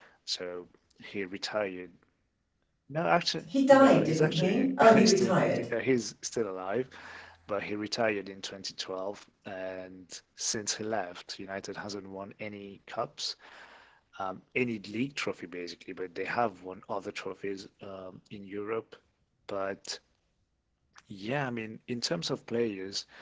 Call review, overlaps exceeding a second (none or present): present